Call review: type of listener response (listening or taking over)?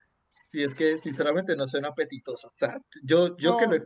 listening